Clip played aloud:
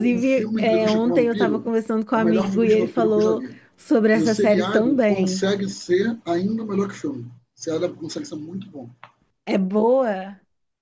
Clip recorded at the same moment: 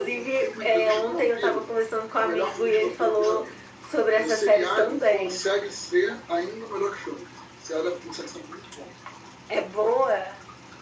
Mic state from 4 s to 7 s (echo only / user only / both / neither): echo only